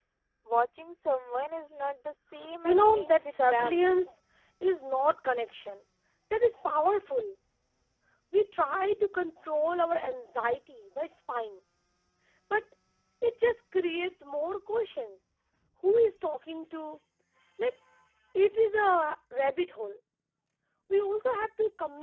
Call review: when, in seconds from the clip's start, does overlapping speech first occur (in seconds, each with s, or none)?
2.6 s